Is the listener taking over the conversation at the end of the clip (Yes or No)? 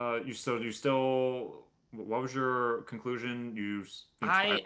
Yes